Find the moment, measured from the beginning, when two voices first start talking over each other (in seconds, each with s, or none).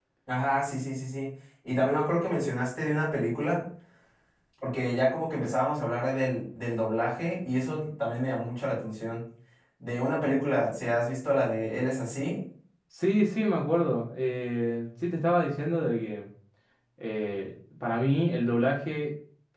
none